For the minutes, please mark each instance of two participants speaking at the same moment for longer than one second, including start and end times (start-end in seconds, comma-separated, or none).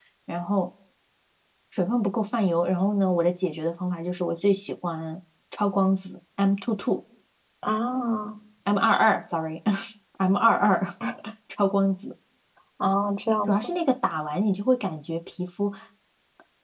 none